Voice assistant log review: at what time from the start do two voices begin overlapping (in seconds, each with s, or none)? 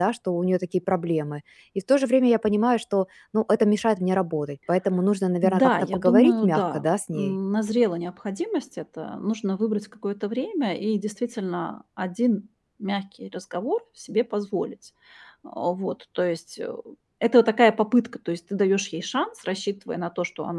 5.4 s